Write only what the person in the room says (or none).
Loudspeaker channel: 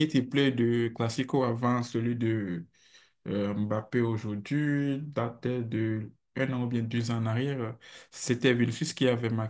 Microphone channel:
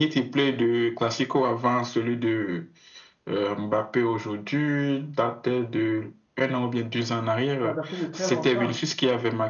ça datait de très longtemps.